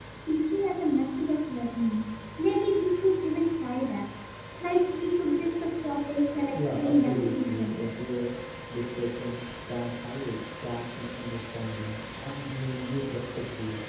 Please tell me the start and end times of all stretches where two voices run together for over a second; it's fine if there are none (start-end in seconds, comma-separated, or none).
6.5-7.8